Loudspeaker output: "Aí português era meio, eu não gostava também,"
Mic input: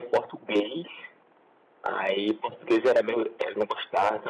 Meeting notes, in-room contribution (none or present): none